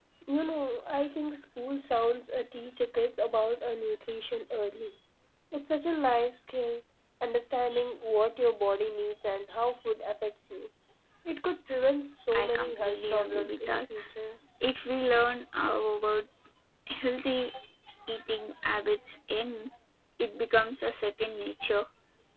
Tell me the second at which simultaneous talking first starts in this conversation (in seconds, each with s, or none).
12.3 s